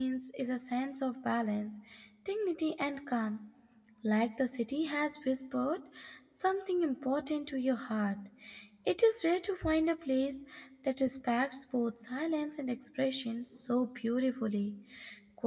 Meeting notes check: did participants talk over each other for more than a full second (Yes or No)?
No